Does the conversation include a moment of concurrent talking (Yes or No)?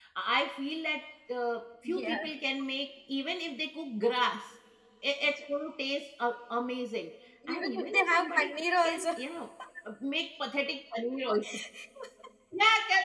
Yes